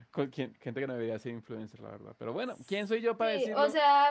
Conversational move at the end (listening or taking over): taking over